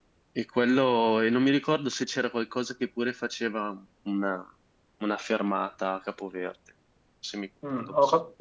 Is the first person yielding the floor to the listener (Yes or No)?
Yes